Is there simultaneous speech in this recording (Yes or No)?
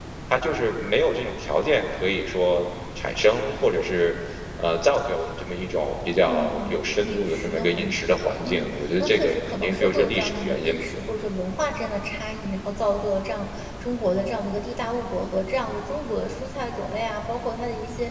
Yes